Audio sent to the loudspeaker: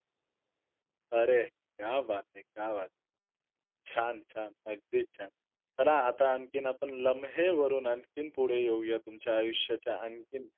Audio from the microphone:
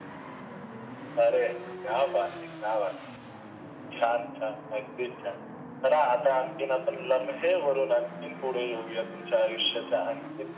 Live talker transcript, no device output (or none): none